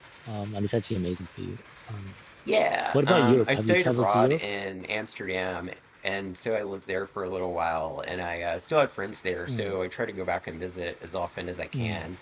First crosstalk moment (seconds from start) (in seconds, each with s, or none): 2.9 s